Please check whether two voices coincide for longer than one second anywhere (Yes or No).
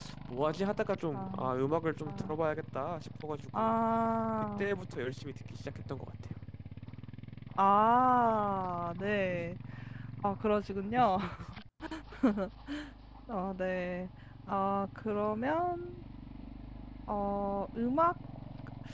No